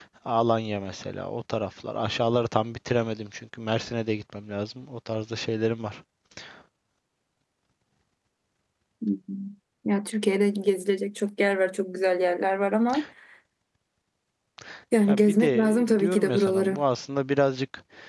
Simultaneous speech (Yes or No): Yes